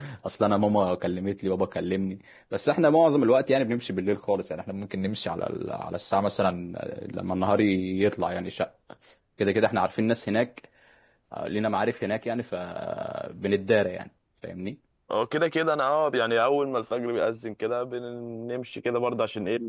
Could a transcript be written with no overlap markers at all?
Yes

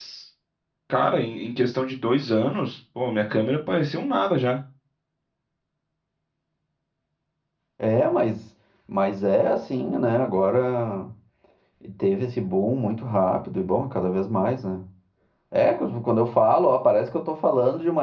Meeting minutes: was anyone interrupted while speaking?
No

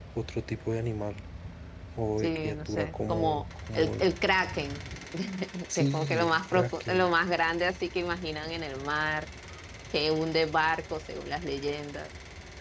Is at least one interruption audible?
Yes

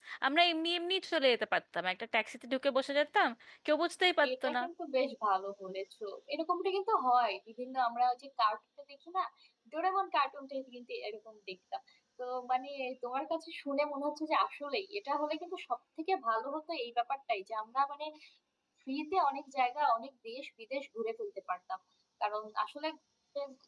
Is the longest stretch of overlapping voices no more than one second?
Yes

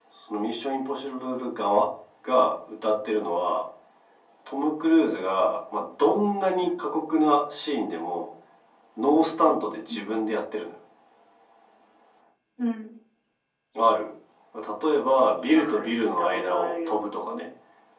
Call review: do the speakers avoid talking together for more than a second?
No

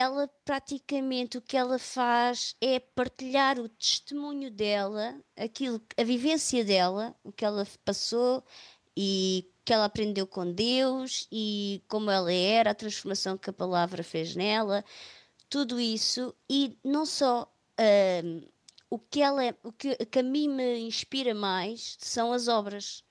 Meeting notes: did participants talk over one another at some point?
No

